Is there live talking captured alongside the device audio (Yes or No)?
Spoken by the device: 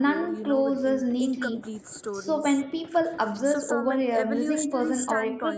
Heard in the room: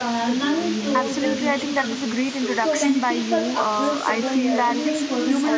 Yes